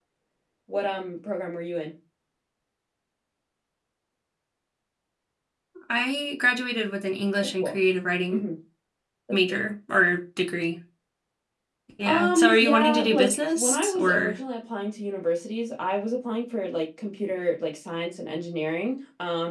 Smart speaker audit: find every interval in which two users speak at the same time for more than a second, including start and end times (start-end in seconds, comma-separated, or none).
12.0-14.4